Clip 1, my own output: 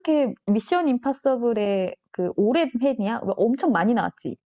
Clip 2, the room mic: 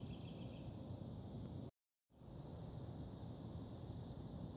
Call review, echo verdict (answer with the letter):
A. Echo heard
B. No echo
B